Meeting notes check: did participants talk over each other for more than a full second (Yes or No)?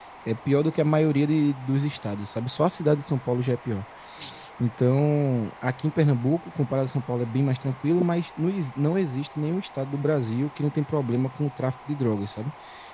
No